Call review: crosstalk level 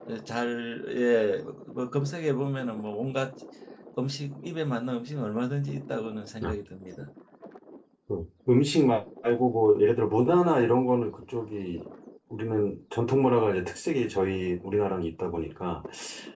none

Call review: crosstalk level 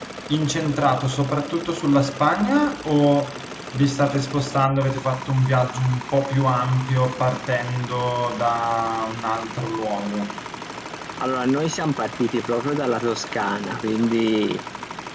none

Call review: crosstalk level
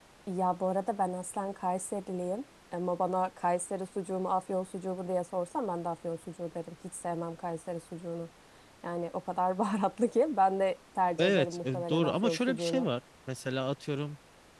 present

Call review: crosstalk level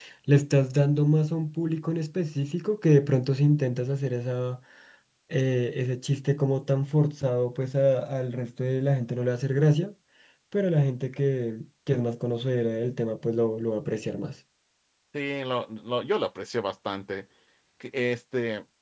none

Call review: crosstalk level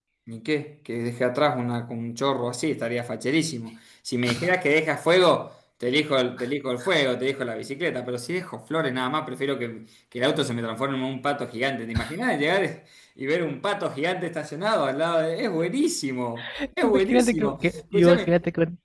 present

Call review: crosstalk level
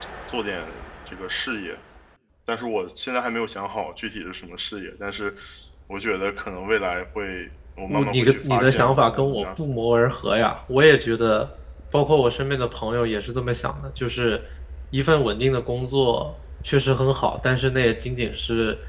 present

